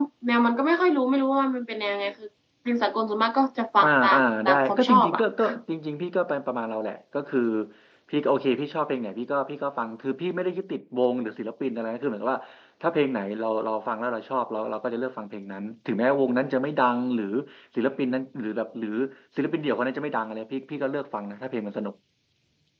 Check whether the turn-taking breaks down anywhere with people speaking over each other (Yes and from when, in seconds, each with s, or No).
Yes, from 3.8 s